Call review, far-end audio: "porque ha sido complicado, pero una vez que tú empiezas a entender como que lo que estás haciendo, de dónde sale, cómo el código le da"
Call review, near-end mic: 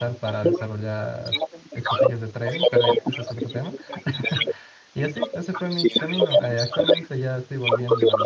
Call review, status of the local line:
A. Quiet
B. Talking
B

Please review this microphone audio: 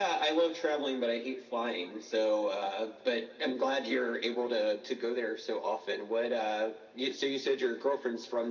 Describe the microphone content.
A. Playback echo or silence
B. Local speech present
A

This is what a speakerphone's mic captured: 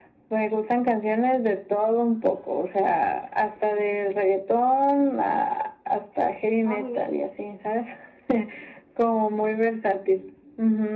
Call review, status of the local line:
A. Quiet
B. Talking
B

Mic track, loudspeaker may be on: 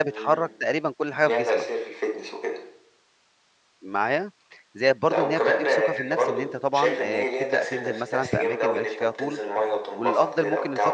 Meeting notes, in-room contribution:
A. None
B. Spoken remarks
B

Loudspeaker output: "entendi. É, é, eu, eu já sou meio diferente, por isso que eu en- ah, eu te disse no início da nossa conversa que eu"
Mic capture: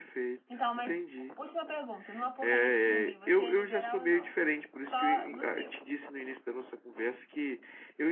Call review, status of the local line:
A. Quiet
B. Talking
B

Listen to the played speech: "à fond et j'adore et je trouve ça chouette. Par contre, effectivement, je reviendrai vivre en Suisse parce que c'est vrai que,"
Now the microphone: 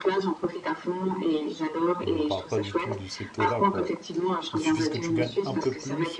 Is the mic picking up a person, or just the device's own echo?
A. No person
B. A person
B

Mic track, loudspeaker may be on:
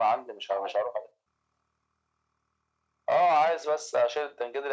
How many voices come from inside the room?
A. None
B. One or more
A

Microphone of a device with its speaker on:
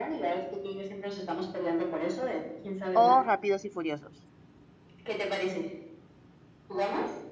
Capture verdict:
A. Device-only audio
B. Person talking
B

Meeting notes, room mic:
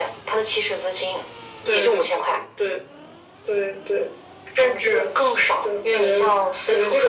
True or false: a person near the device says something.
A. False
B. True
A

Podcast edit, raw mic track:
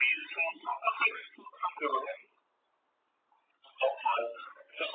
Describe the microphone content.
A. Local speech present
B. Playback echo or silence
B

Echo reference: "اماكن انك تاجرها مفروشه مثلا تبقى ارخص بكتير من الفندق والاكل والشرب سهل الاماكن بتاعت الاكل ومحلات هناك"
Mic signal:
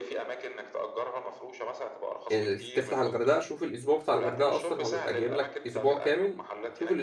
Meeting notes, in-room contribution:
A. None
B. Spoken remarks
B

